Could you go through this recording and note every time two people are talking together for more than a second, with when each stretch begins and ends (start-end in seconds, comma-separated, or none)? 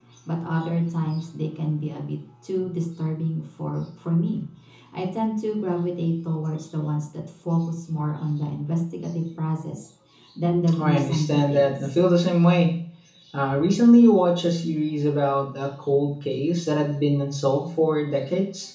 10.8-12.0